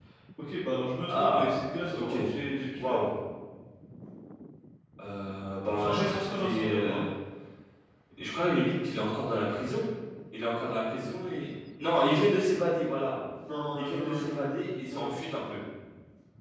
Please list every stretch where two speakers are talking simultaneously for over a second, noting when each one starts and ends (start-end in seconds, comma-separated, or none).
5.8-7.0, 13.9-15.1